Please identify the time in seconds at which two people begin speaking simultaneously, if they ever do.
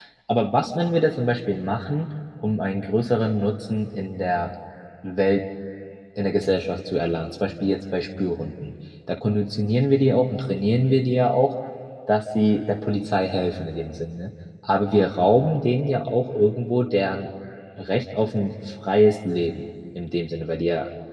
none

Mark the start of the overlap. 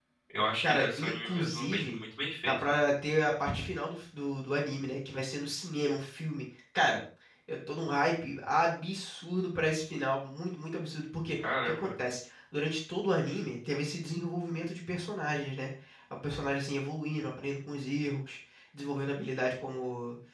0.6 s

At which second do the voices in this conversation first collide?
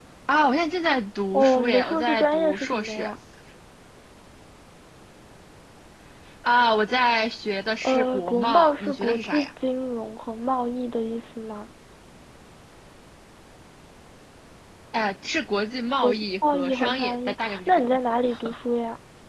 1.3 s

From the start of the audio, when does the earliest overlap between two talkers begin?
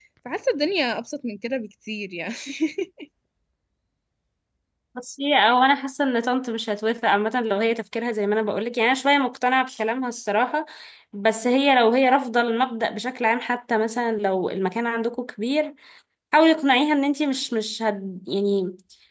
none

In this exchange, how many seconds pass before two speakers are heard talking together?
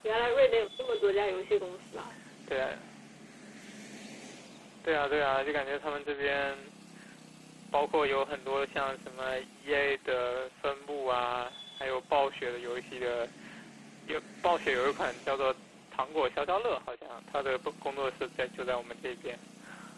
none

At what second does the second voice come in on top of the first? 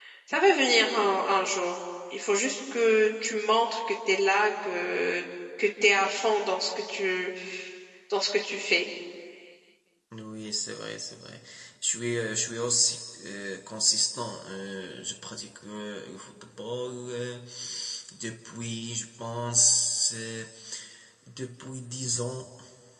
none

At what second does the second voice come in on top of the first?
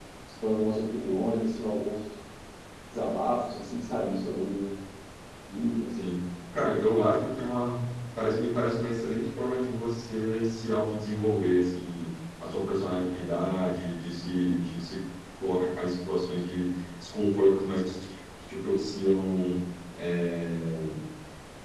none

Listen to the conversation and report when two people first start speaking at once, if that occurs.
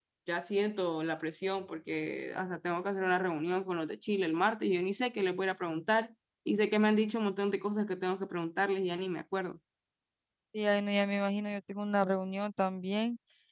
none

